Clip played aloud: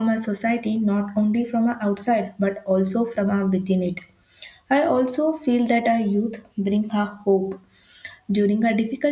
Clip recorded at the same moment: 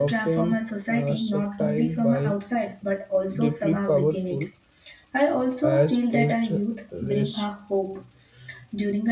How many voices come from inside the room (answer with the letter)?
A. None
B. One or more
B